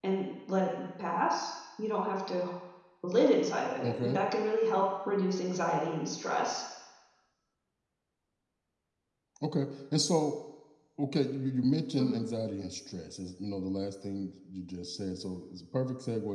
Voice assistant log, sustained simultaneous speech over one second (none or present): none